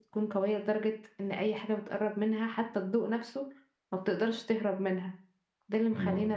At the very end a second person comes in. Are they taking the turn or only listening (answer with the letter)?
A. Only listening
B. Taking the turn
A